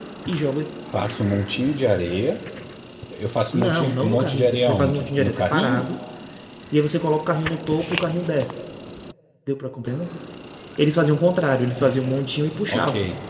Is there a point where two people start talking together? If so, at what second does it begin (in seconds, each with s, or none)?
3.5 s